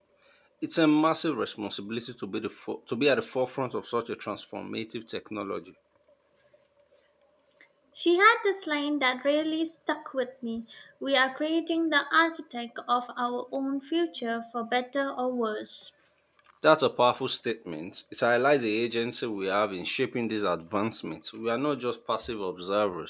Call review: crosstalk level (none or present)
none